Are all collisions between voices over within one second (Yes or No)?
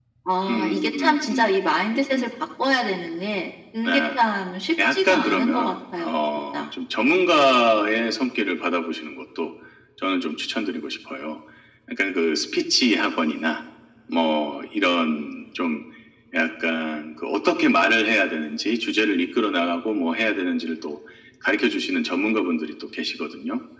No